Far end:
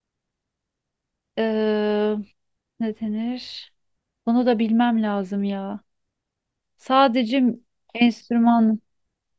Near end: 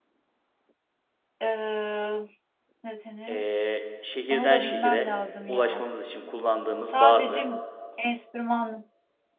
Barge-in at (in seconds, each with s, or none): 3.3 s